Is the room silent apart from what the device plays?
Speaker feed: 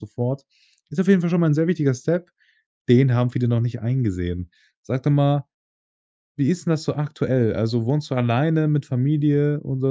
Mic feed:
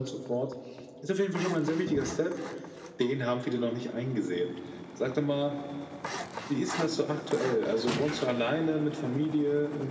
Yes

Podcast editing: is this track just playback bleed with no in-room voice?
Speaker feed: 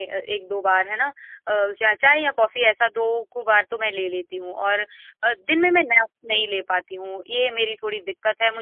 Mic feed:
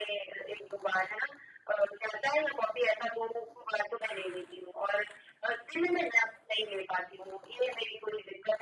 Yes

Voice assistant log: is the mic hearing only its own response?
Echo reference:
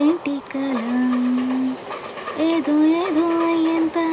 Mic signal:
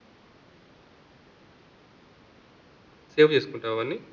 No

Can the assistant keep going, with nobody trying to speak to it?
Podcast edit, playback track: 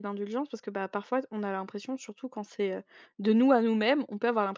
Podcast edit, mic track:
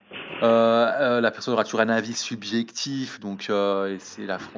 No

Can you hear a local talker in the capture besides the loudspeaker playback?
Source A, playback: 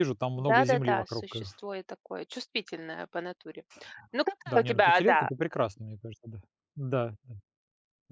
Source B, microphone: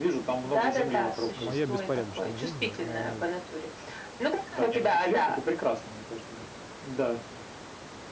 Yes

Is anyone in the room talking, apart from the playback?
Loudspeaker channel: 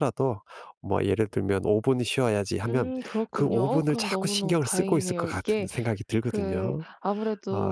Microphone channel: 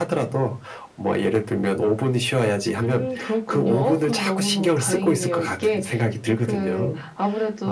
No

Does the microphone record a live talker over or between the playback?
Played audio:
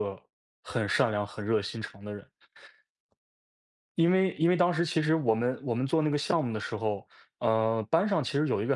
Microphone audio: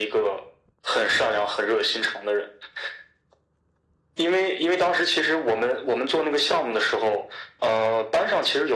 No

